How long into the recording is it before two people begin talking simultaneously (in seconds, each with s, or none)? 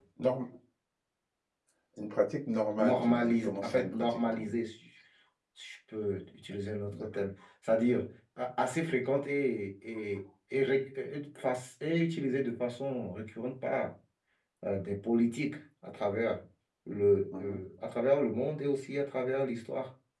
2.8 s